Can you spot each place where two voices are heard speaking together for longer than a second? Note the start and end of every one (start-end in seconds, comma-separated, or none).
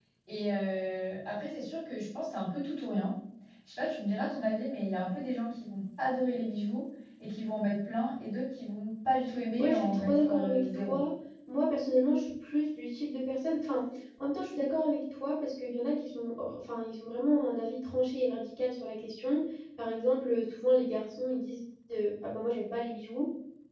9.6-11.0